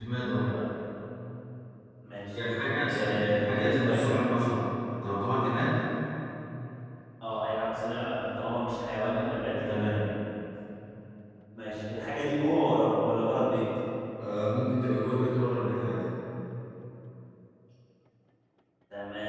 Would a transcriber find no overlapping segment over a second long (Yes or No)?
No